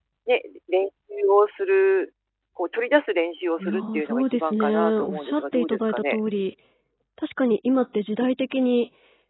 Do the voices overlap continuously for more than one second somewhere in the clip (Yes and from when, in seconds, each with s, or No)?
Yes, from 3.6 s